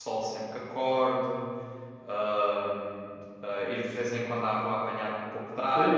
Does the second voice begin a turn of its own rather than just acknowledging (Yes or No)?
Yes